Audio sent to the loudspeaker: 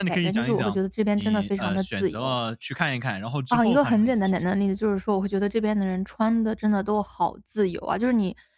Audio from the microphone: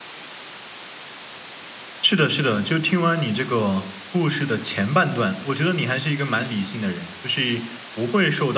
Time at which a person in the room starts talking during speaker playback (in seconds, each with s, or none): 2.0 s